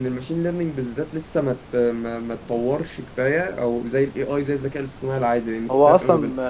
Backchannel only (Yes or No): No